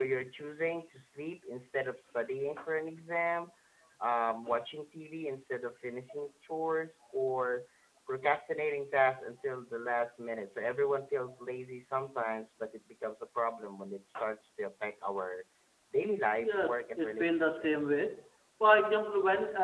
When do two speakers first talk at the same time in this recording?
16 s

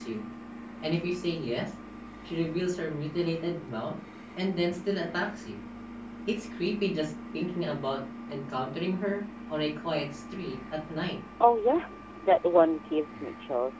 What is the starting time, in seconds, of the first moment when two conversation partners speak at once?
none

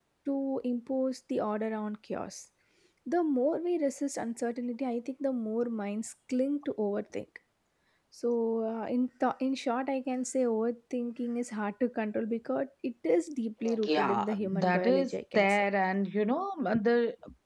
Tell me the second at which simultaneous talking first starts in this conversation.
14 s

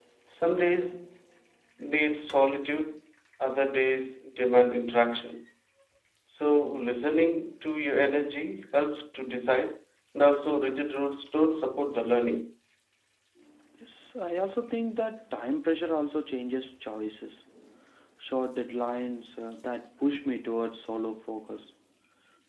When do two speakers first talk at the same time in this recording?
none

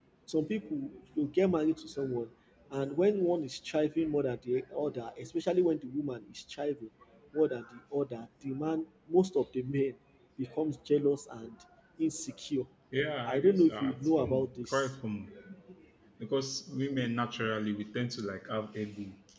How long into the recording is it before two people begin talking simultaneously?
13 s

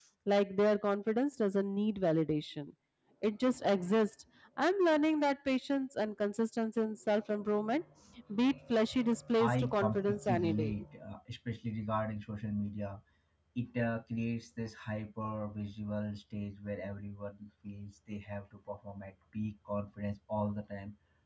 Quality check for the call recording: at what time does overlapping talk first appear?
9 s

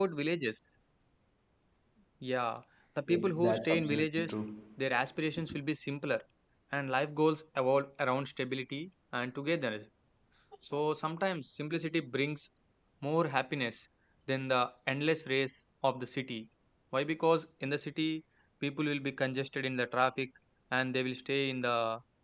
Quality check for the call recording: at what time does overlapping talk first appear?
3 s

